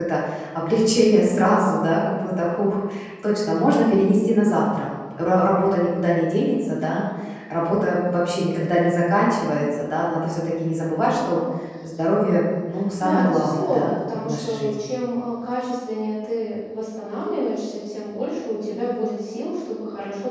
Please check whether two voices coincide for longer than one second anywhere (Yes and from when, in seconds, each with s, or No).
Yes, from 13.0 s